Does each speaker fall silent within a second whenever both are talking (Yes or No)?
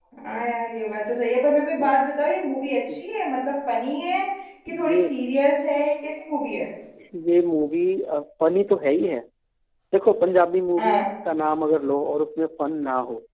Yes